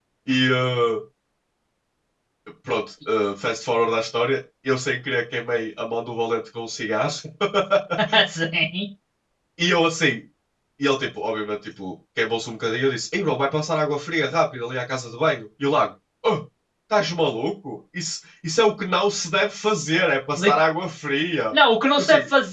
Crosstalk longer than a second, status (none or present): none